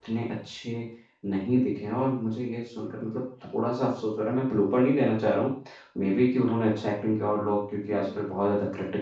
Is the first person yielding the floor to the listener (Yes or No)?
No